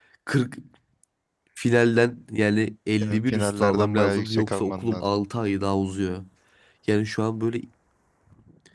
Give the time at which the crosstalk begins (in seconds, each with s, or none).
3.0 s